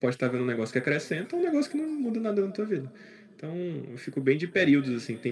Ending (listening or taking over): listening